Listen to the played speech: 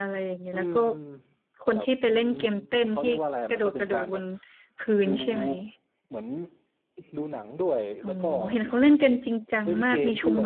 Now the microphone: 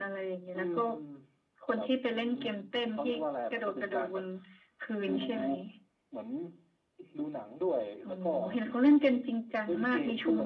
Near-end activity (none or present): none